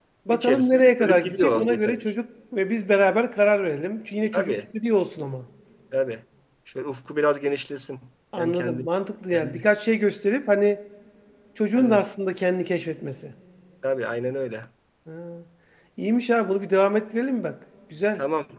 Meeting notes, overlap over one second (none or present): present